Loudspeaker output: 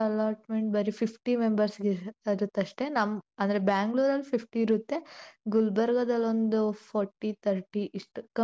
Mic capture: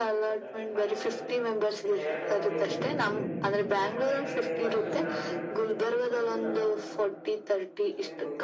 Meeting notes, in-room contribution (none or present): present